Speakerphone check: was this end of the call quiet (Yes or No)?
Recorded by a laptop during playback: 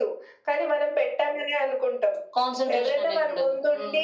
Yes